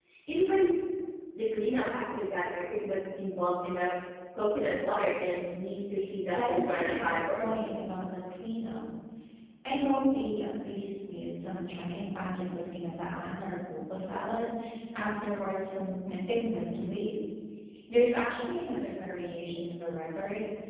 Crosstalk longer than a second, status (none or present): present